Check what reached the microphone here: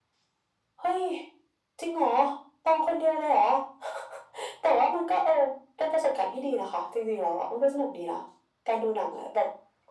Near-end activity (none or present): none